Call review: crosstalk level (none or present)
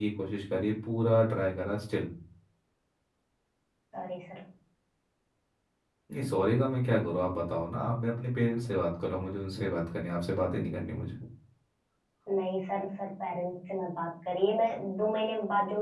none